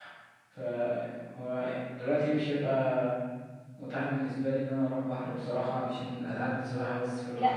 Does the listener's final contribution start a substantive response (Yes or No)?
Yes